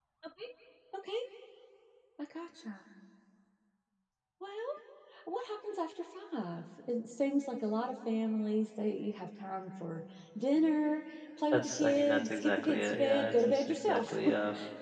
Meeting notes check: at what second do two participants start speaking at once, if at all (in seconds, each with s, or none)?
11.5 s